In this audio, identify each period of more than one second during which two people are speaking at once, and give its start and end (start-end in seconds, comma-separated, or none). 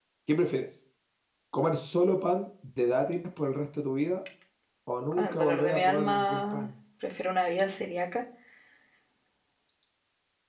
5.1-6.7